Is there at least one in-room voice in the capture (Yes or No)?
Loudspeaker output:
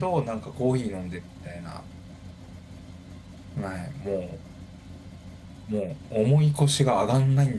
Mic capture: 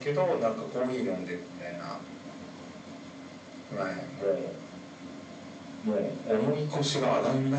No